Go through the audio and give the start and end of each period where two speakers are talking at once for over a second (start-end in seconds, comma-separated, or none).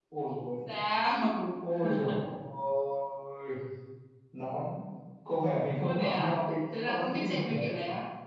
5.8-7.5